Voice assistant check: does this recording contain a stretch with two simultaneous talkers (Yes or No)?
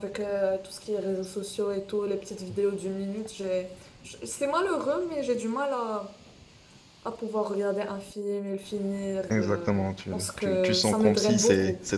Yes